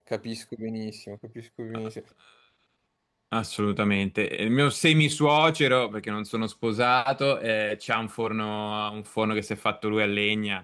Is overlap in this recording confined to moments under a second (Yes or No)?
Yes